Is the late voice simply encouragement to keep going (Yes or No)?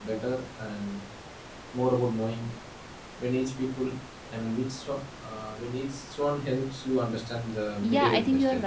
No